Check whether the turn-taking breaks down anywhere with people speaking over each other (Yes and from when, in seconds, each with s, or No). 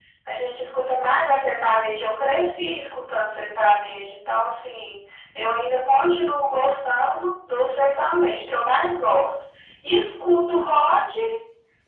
No